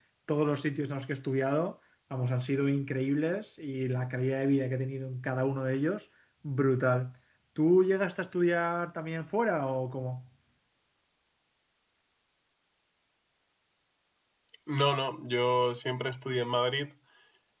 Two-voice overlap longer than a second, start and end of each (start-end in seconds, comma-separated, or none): none